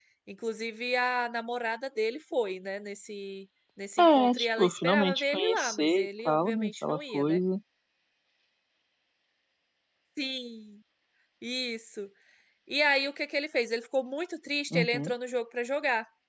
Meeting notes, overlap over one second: present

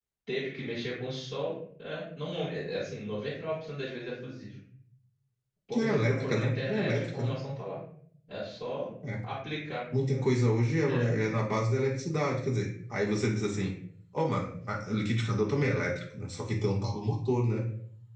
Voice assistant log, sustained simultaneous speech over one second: present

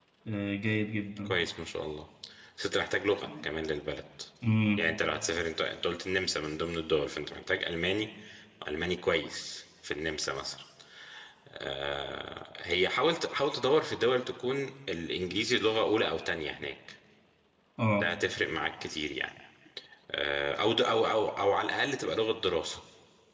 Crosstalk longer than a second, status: none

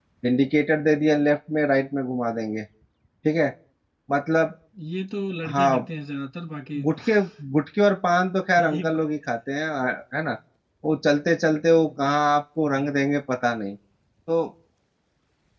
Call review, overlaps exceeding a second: none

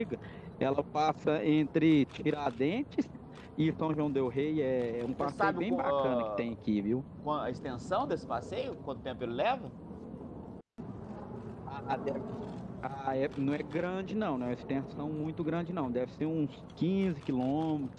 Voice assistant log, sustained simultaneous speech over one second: present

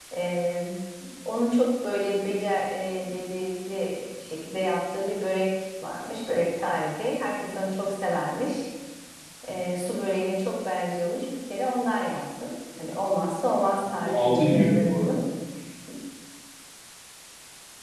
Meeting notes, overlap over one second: present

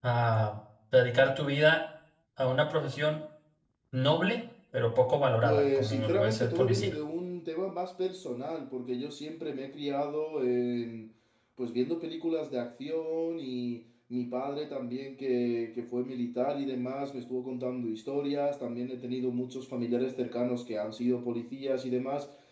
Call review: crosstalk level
present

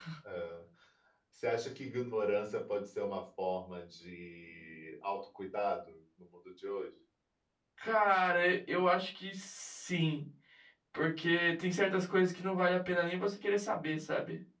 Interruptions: none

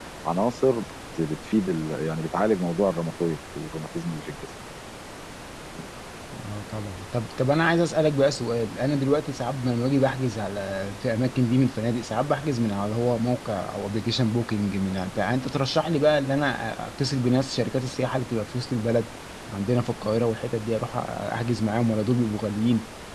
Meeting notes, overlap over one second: none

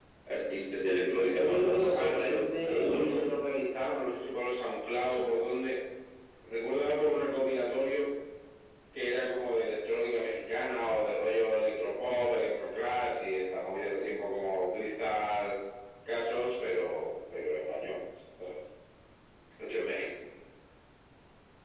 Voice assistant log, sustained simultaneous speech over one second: present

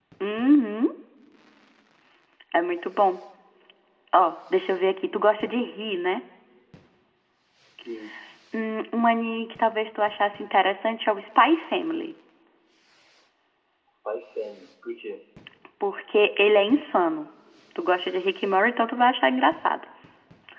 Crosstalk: none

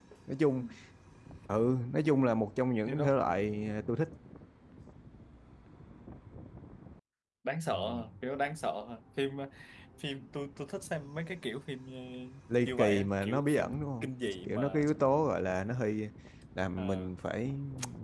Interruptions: present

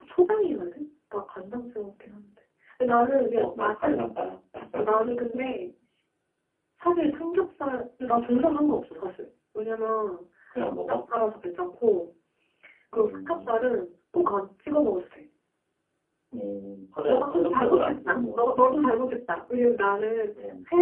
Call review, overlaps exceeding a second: present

